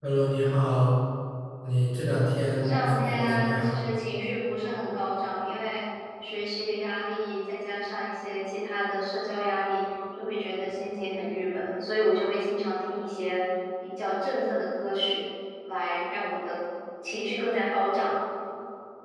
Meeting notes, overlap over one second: present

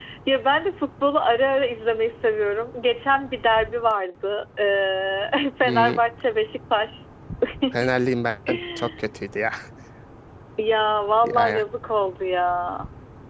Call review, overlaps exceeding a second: none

